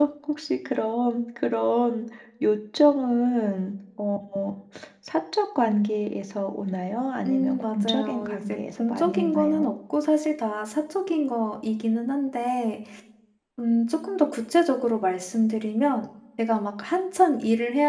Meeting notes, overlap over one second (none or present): present